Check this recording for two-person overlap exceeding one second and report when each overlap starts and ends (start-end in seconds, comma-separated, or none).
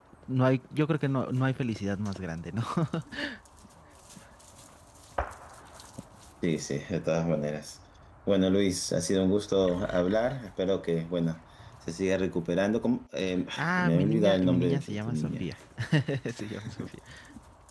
13.6-15.5